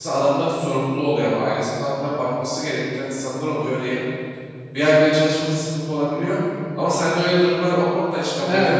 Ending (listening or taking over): taking over